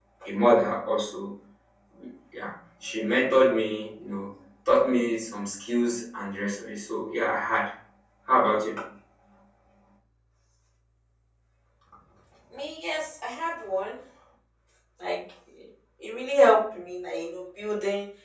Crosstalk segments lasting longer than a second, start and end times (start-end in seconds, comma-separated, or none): none